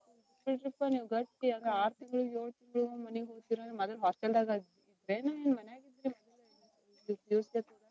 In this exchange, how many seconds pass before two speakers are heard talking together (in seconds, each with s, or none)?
none